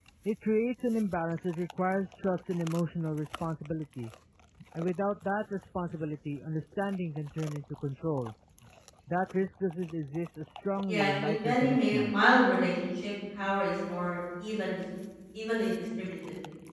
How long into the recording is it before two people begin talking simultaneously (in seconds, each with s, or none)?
10.9 s